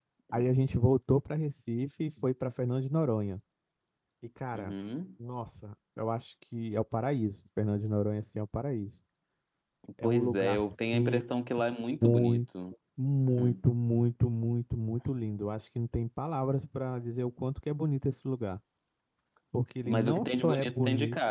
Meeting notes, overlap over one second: present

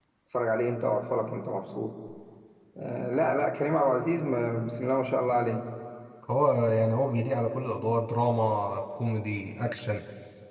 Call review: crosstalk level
none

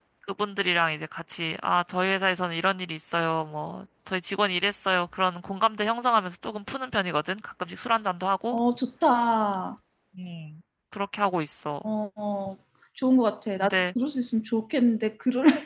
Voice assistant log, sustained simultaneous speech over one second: none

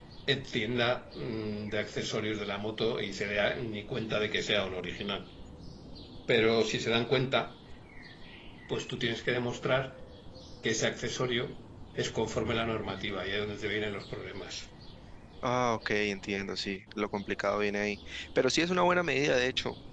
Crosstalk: none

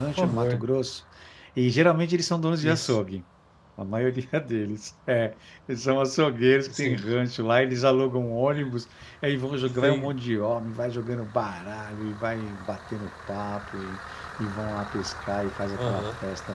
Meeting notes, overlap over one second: none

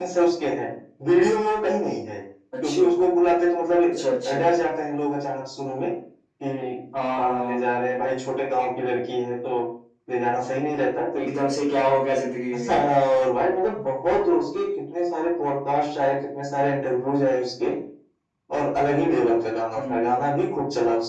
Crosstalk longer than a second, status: none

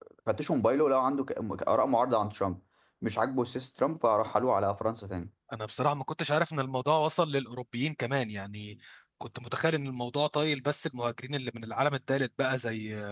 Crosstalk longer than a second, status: none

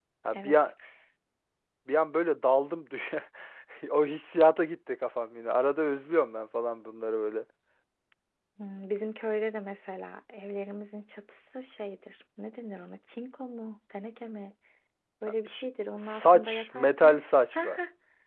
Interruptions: present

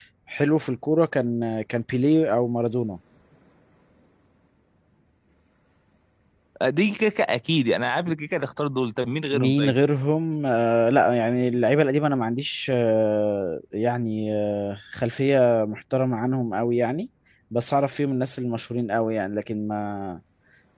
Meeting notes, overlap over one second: none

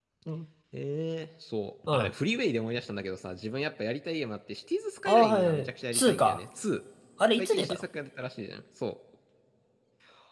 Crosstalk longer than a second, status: present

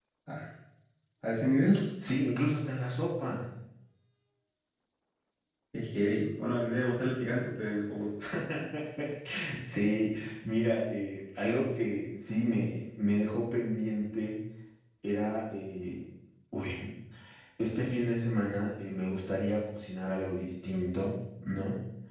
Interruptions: none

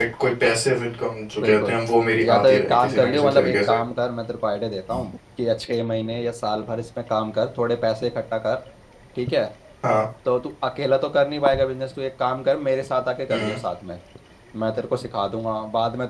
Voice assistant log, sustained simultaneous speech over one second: present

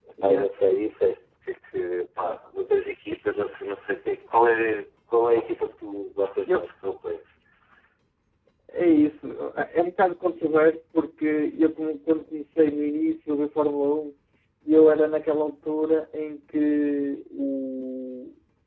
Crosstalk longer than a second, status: none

